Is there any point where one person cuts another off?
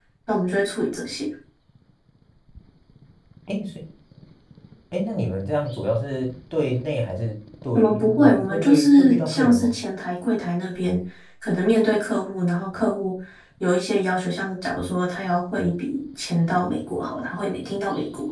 Yes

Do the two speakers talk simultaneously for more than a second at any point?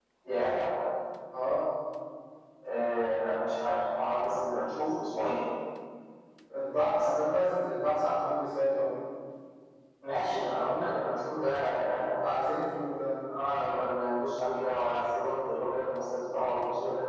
No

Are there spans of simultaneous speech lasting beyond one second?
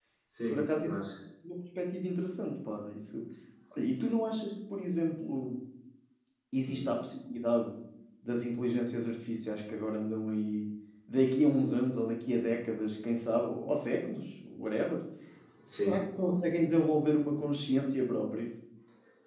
No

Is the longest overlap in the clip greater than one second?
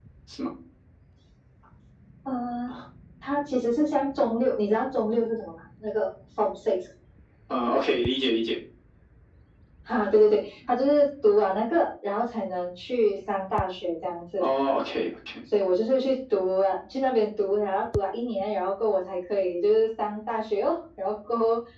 No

